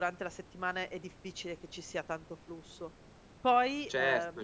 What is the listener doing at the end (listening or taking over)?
taking over